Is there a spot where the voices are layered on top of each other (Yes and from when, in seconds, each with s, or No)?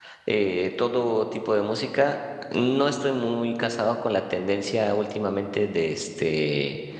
No